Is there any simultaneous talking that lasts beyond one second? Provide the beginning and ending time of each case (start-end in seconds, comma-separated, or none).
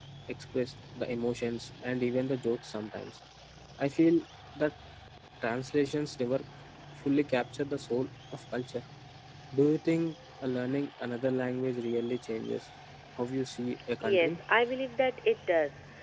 none